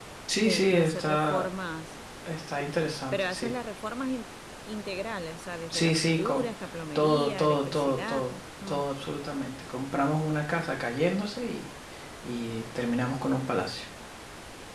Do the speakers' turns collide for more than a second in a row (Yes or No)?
Yes